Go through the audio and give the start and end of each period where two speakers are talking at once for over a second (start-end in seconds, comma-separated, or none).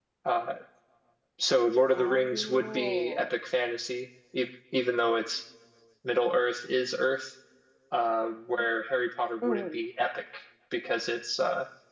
1.9-3.3